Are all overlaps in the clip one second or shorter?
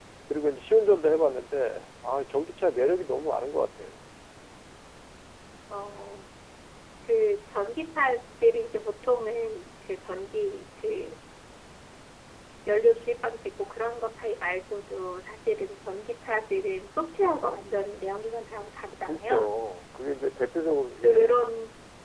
Yes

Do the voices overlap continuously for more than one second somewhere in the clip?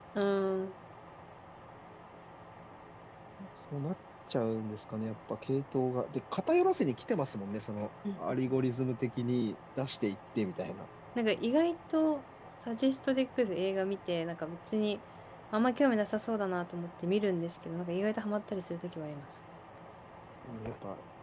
No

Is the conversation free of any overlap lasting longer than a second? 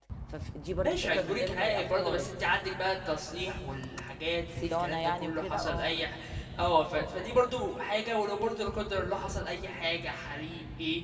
No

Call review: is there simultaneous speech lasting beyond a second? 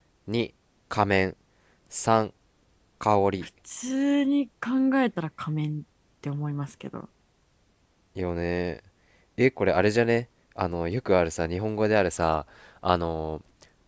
No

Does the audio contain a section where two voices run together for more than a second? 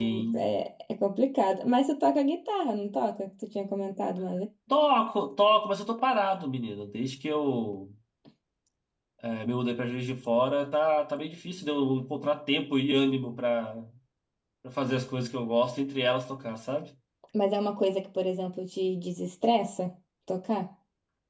No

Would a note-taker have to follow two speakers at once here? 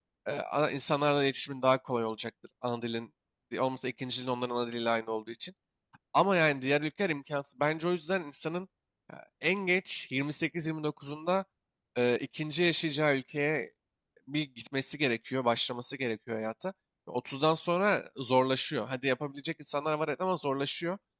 No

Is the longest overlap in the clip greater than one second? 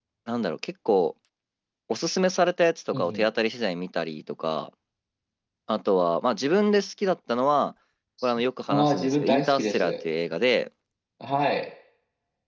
Yes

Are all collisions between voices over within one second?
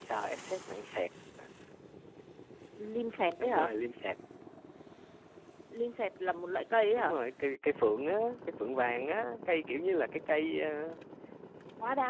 Yes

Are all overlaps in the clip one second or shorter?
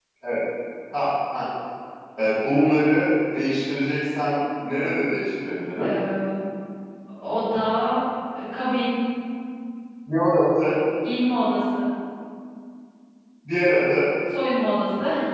Yes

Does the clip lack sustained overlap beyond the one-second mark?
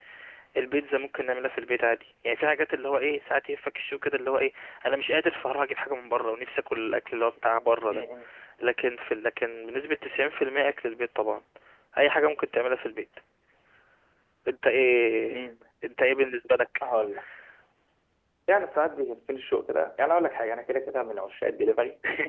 Yes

